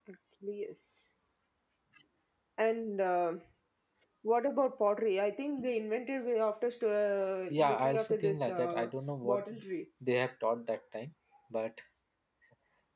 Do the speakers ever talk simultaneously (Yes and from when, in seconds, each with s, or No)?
Yes, from 7.5 s